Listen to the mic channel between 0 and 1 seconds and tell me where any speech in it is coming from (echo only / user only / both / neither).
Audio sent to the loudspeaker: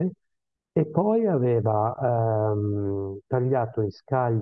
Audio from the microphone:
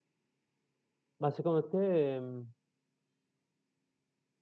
neither